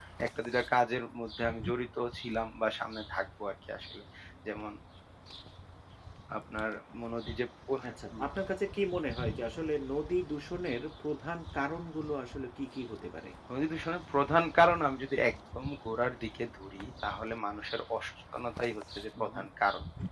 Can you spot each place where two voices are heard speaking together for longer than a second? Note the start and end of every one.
none

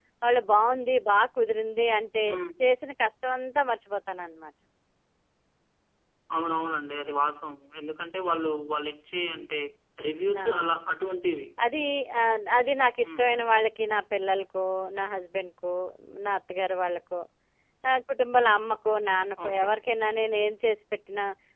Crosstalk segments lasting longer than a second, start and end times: none

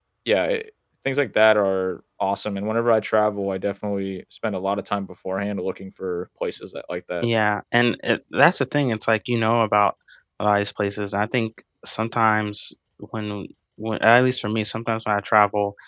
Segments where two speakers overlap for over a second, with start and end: none

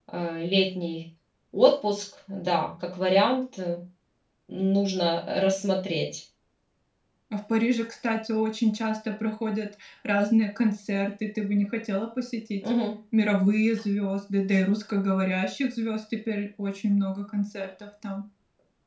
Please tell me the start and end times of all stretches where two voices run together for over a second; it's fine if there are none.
none

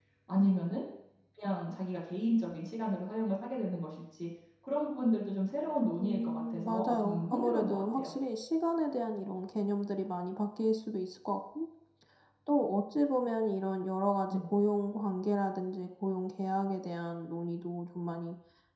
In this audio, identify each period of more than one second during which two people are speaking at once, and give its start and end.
6.0-8.1

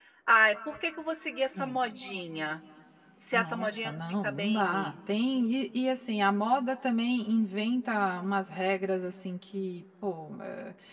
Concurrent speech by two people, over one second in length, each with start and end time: 3.3-5.0

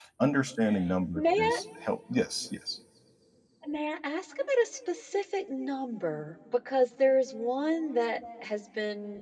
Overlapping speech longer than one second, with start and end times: none

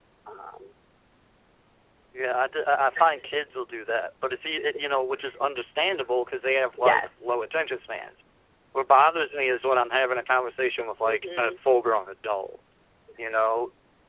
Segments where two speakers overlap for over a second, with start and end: none

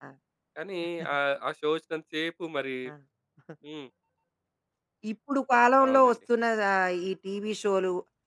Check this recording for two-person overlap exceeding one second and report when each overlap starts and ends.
none

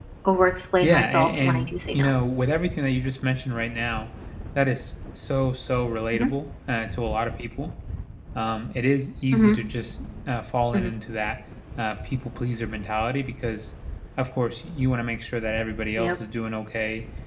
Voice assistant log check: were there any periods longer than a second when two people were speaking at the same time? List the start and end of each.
0.8-2.1

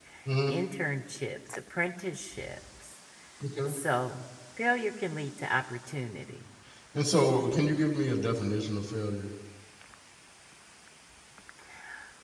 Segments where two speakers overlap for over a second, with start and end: none

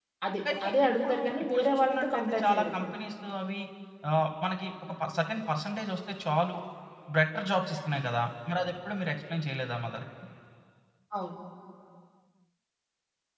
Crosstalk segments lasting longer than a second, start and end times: 0.6-2.9

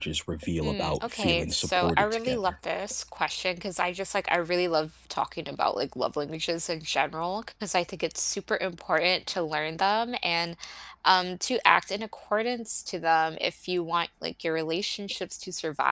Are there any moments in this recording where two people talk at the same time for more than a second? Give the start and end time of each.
0.6-2.4

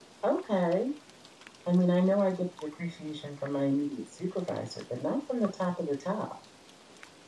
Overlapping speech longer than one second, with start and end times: none

